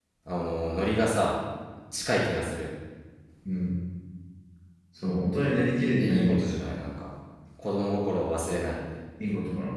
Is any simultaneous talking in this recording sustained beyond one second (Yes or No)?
No